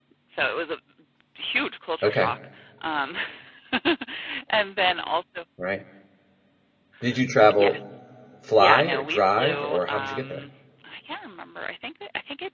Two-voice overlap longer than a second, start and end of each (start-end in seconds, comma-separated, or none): 8.6-10.5